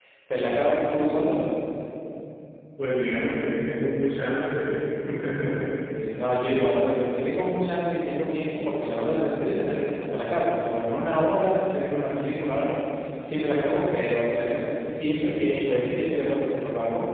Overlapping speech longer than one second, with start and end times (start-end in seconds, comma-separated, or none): none